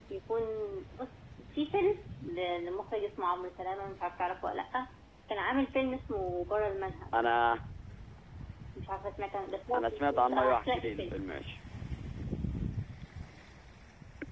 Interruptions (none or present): present